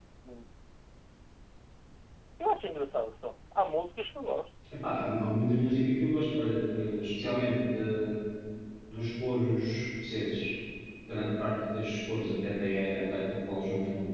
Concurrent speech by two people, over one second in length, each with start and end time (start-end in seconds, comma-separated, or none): none